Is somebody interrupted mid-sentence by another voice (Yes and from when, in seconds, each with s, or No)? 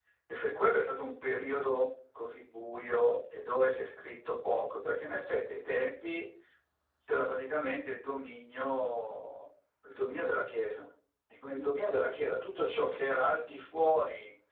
No